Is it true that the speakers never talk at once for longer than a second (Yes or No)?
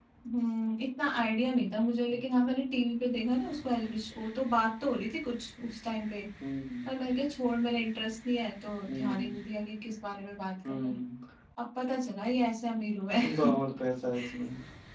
Yes